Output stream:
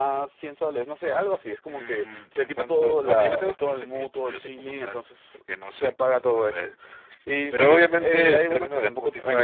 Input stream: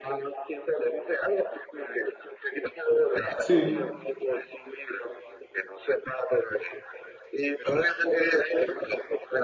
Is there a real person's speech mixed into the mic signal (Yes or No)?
Yes